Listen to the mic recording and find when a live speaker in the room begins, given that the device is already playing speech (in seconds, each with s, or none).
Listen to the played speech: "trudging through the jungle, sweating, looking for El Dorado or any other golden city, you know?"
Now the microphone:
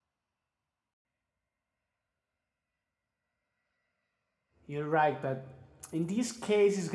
4.6 s